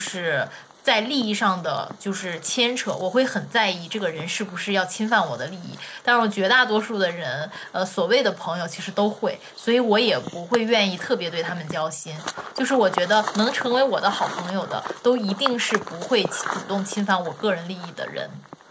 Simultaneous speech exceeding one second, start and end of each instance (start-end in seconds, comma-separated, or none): none